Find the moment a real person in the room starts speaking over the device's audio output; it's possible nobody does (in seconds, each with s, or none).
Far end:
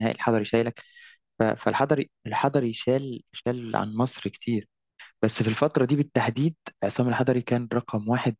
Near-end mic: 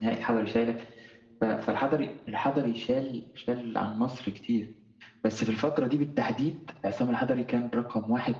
none